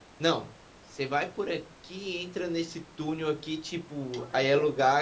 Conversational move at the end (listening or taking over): listening